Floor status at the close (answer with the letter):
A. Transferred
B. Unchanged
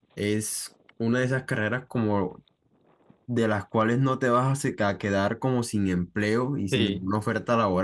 B